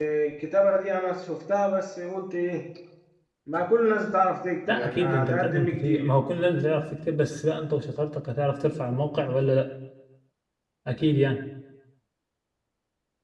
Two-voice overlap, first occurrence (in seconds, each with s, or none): 4.7 s